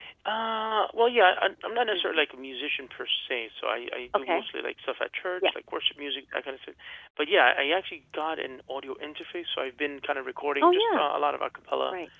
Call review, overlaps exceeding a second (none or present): none